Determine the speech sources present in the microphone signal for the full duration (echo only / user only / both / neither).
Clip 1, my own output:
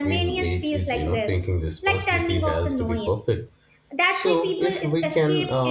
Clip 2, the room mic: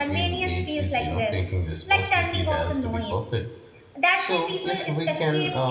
echo only